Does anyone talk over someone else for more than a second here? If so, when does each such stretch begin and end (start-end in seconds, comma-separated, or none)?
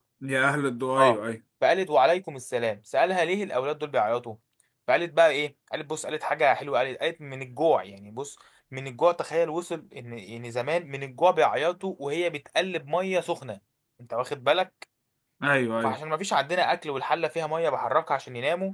none